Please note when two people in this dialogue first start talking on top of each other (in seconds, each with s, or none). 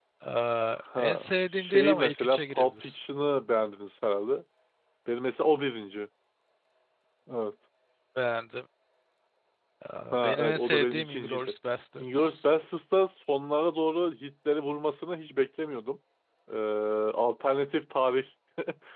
1.0 s